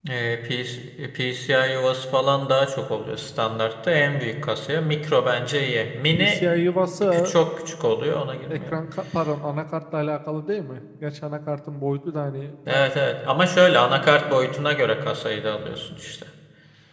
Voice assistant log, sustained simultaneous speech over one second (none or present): none